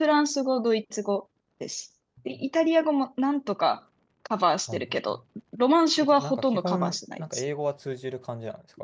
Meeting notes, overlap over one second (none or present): present